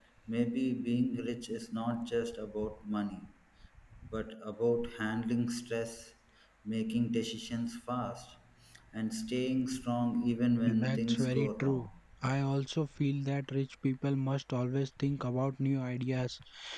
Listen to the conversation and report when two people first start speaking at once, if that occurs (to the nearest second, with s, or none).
11 s